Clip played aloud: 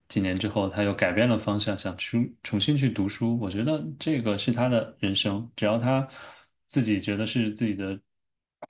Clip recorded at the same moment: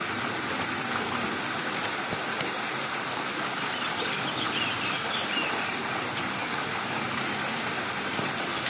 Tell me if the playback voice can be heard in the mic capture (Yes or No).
No